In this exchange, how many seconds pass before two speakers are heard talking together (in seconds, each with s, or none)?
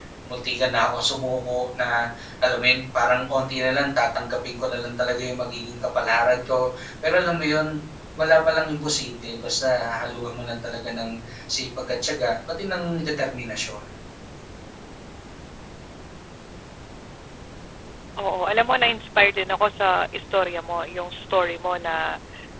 none